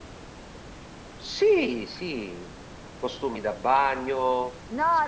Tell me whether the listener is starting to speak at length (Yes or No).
Yes